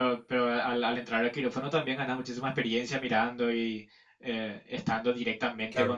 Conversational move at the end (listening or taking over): taking over